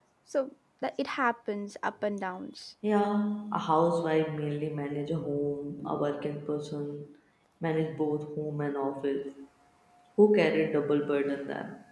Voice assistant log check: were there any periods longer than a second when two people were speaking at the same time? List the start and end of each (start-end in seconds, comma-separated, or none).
none